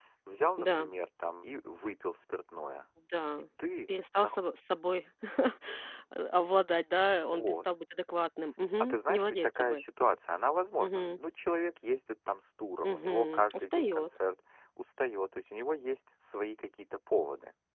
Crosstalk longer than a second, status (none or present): present